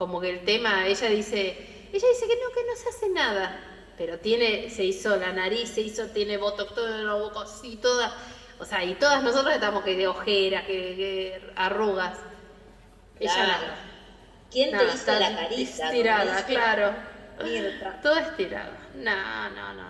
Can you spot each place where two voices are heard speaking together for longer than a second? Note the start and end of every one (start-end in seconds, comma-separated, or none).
14.7-16.6